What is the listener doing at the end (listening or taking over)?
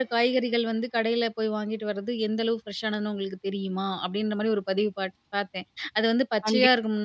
listening